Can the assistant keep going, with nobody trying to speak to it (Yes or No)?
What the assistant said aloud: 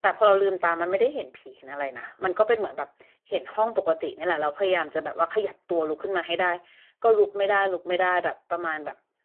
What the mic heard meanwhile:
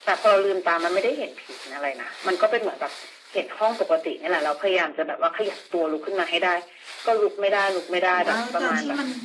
No